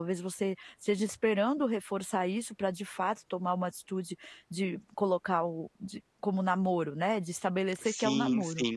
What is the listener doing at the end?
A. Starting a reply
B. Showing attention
A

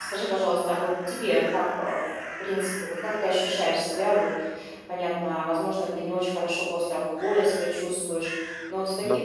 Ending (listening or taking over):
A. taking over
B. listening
B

